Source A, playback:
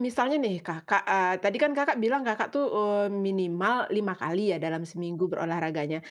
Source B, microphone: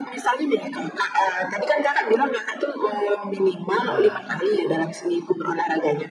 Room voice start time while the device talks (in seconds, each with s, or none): 3.9 s